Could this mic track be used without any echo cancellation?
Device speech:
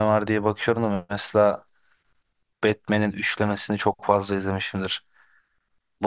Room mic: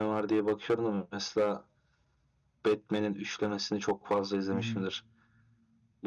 No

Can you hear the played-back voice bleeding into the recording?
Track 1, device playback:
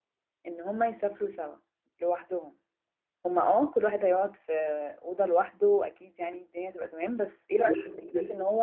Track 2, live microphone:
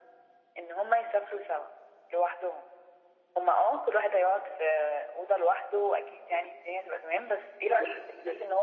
Yes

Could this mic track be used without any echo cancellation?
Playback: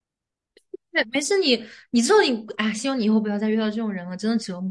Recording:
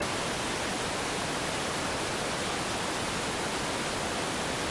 Yes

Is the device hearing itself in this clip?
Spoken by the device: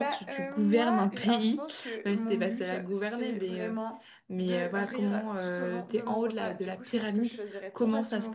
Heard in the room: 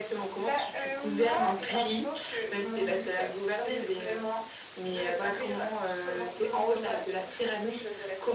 Yes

